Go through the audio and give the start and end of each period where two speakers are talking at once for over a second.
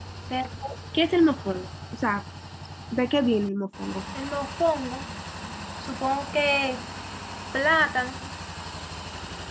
none

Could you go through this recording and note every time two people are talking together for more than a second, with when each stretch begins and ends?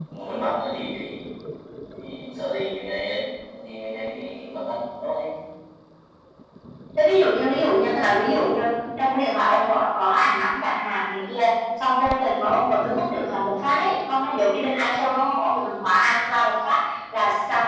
none

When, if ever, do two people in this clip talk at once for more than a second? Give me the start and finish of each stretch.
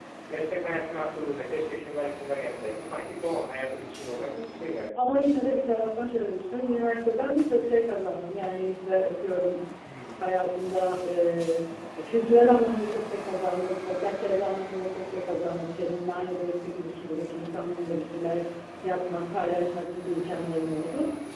none

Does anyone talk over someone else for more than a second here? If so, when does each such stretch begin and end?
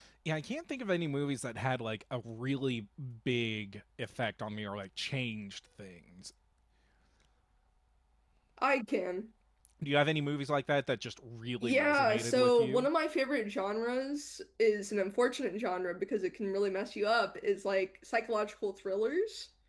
11.6-12.9

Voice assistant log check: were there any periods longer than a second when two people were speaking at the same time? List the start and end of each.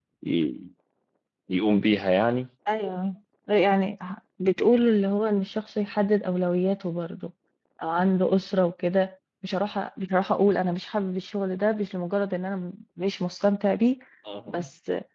none

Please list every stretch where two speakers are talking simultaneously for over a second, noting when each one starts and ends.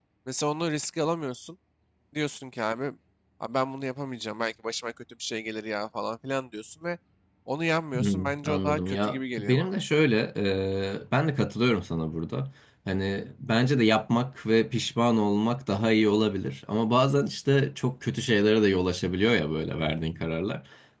7.9-9.7

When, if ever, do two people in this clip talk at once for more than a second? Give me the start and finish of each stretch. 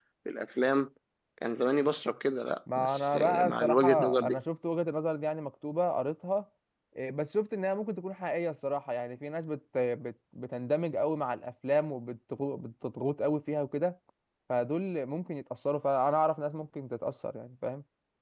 2.8-4.4

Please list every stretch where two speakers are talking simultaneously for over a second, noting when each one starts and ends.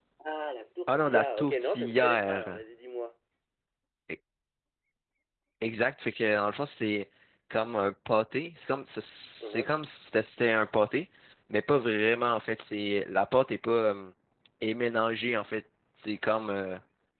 0.9-2.6

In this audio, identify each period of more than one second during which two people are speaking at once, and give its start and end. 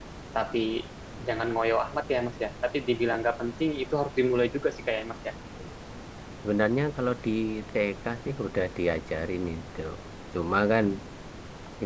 none

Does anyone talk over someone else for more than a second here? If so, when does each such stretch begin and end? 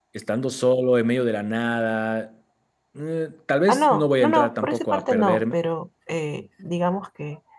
3.7-5.5

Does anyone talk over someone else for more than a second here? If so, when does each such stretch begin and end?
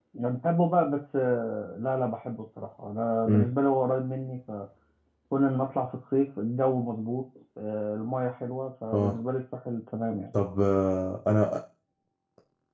none

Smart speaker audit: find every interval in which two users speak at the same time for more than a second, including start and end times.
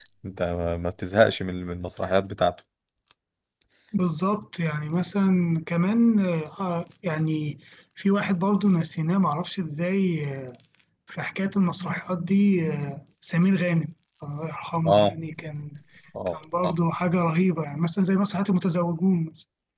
none

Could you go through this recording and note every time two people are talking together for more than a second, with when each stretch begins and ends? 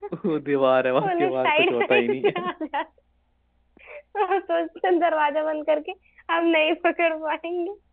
1.0-2.4

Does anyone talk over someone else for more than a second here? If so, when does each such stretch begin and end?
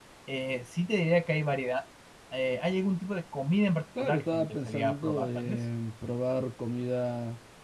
4.0-5.6

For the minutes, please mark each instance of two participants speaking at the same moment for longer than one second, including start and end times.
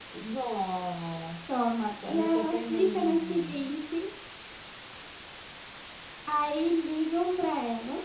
1.5-3.7

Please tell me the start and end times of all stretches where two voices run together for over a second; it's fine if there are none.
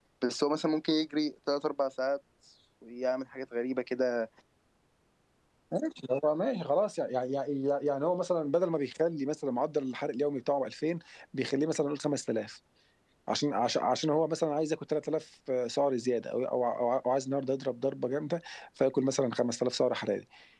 none

